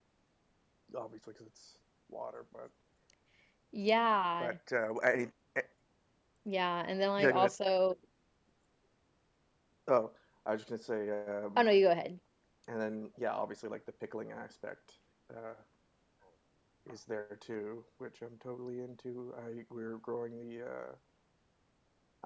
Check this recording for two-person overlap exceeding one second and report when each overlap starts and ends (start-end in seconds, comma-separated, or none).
none